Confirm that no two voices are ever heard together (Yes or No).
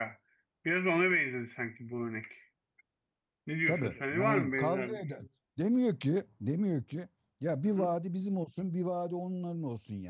No